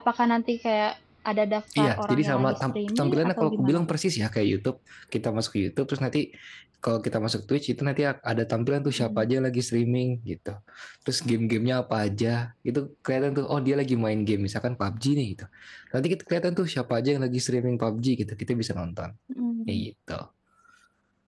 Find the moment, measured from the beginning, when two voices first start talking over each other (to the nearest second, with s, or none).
2 s